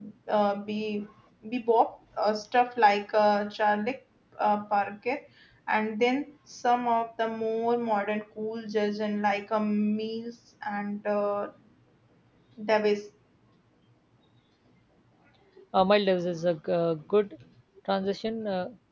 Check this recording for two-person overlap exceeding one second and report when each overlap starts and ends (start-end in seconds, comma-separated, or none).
none